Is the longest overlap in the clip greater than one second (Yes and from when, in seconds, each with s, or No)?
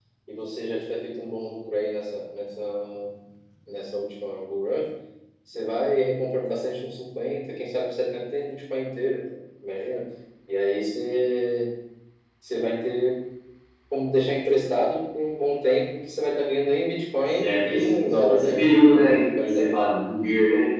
Yes, from 17.4 s